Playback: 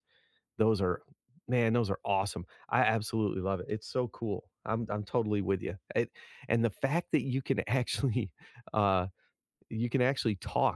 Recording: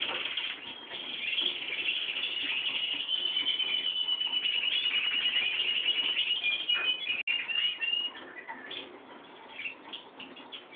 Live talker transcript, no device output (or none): none